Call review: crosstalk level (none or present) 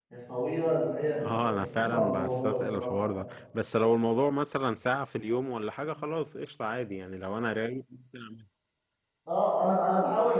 present